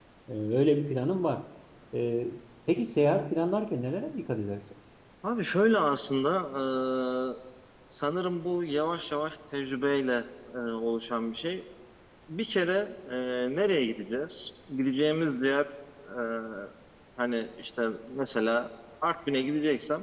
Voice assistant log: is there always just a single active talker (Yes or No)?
Yes